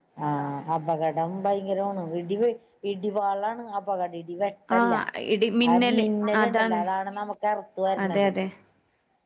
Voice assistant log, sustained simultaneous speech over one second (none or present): none